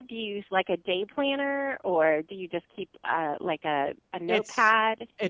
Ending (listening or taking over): taking over